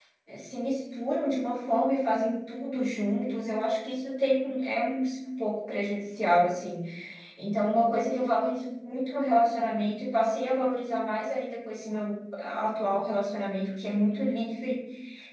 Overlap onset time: none

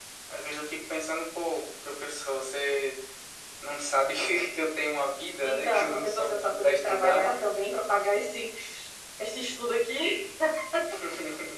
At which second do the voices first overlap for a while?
5.4 s

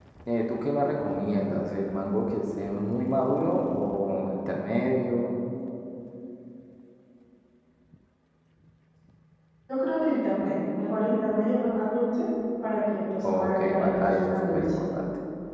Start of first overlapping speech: 13.2 s

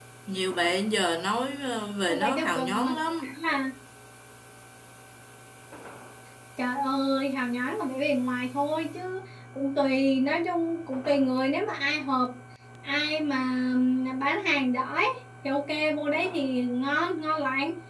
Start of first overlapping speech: 2.1 s

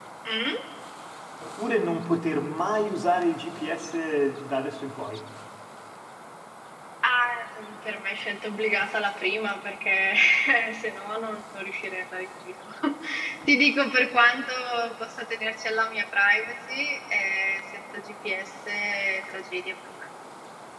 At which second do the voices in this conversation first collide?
none

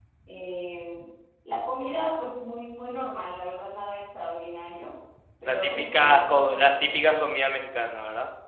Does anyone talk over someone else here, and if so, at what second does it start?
5.5 s

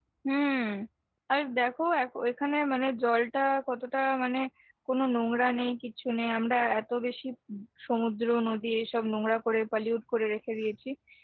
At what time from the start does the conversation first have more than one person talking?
none

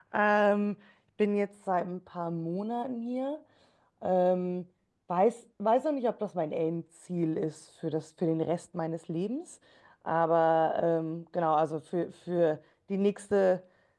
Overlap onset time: none

